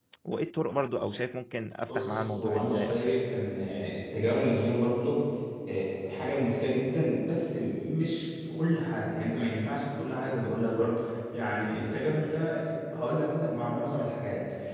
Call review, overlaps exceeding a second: present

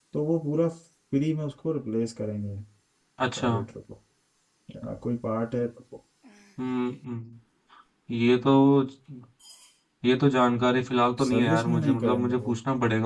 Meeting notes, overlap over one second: present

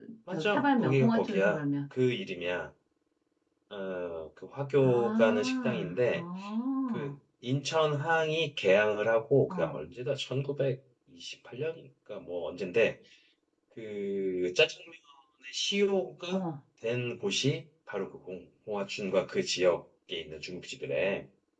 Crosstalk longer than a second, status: present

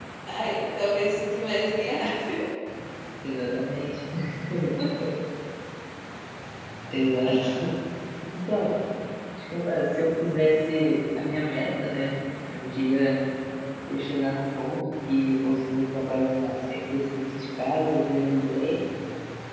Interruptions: none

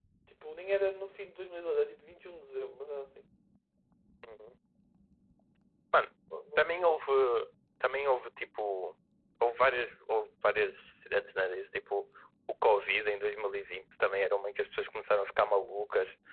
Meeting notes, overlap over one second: none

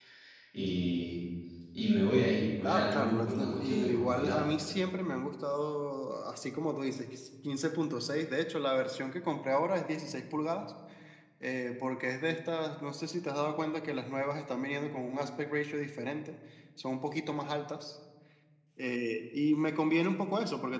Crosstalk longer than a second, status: present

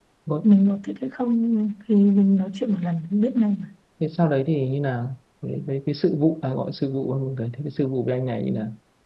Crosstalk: none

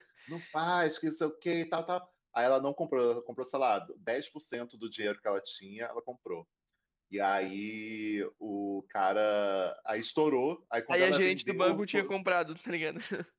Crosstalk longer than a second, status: present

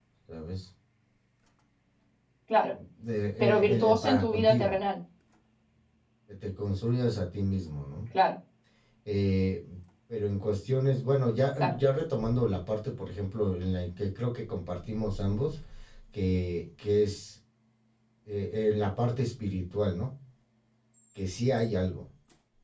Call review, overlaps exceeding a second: present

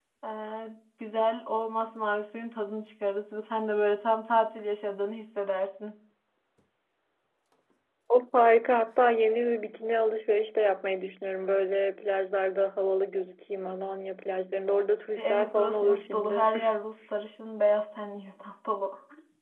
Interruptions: present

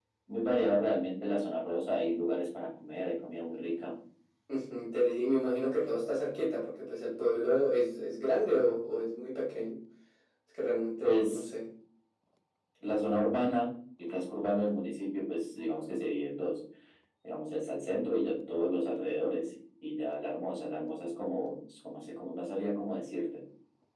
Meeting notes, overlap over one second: none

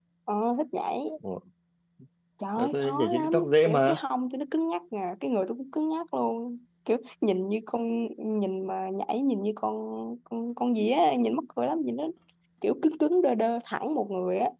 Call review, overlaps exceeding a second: present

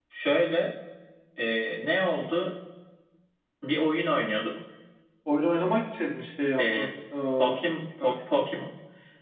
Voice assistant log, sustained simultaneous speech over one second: none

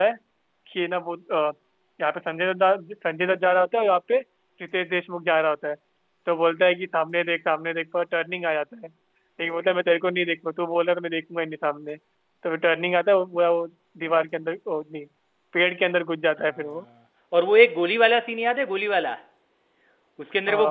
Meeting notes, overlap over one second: none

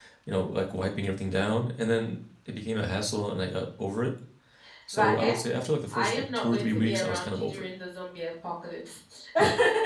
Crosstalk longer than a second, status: present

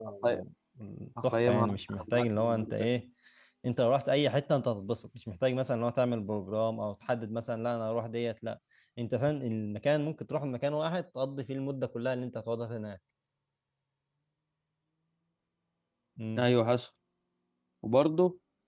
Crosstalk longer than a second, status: present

